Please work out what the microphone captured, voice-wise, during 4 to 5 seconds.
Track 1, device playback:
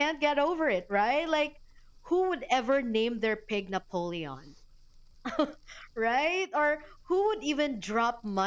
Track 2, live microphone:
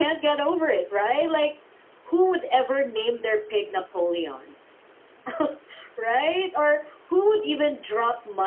echo only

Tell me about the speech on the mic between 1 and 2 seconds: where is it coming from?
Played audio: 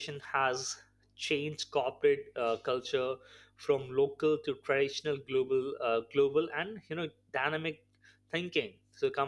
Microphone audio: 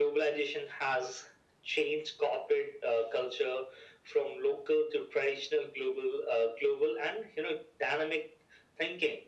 echo only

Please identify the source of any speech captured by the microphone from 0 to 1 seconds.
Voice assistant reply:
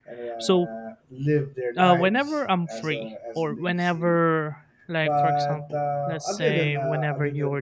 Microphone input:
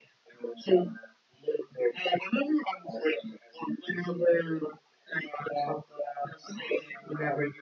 echo only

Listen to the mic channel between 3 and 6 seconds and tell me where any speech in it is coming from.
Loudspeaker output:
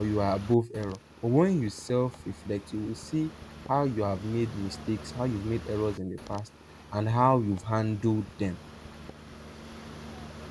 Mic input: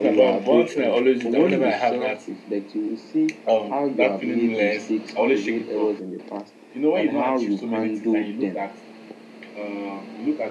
both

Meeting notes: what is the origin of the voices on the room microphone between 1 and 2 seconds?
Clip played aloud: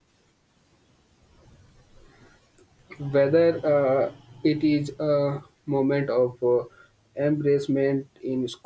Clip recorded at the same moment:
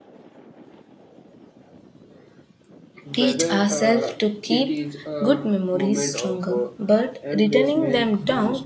neither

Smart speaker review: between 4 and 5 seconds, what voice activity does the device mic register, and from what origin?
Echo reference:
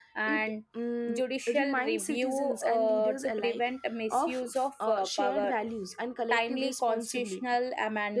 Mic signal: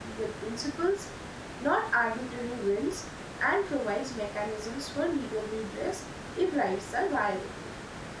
user only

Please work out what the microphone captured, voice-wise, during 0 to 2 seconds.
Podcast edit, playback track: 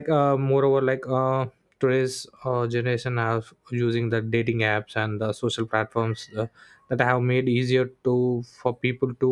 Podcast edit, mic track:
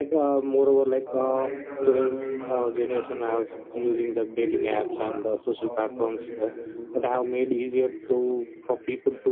both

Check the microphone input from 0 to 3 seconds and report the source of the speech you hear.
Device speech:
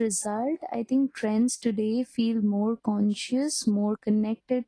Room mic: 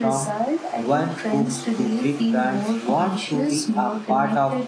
both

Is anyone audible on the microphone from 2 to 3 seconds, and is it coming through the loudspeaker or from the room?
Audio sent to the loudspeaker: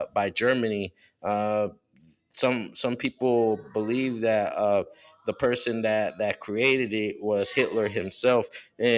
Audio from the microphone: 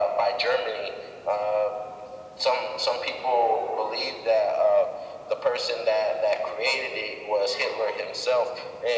echo only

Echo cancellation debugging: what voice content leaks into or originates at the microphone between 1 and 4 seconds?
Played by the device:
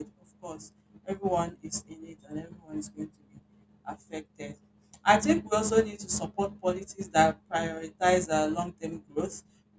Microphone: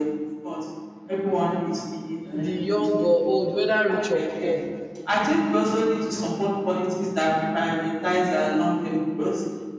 both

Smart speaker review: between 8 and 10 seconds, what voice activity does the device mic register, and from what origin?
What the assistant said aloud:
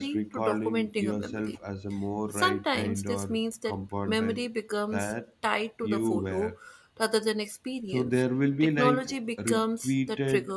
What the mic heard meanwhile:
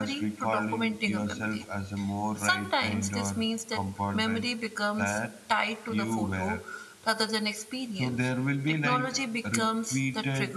echo only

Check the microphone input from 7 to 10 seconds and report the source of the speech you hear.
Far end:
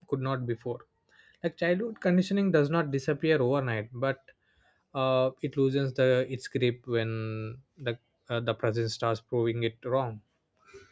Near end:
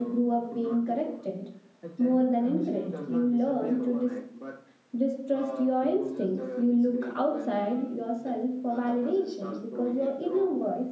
both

